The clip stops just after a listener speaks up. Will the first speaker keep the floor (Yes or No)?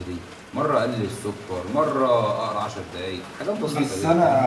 No